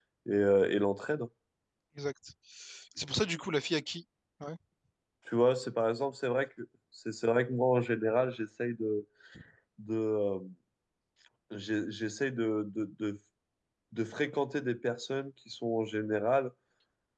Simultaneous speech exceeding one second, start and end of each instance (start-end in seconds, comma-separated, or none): none